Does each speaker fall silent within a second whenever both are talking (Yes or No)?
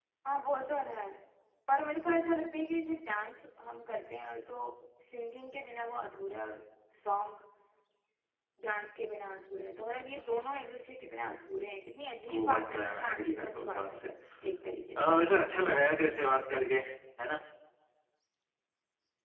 No